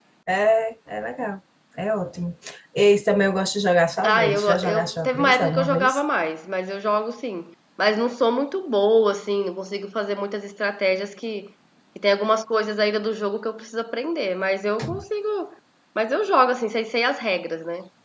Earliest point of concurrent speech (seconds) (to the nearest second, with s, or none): 4 s